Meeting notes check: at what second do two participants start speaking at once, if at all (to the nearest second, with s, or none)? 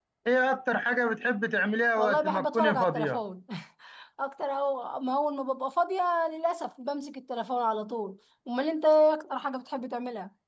2 s